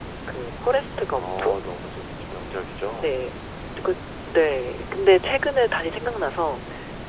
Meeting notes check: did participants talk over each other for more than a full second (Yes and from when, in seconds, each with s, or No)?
No